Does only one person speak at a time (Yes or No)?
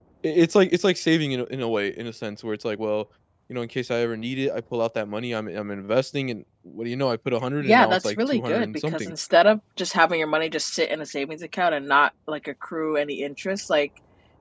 No